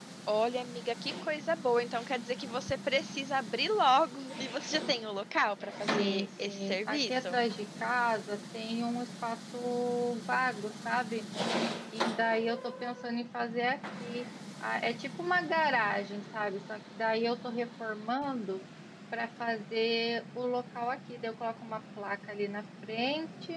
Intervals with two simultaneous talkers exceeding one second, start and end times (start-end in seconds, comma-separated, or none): 5.9-7.4